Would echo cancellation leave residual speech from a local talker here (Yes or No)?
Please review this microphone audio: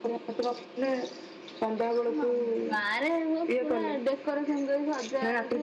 No